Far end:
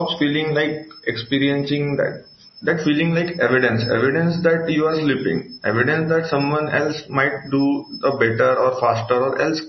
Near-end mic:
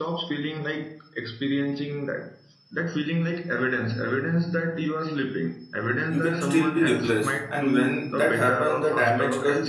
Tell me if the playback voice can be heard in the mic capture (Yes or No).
Yes